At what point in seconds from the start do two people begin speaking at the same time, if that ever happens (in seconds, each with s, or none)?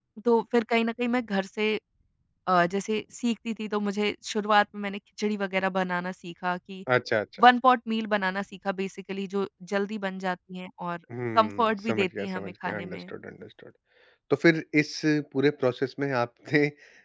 11.1 s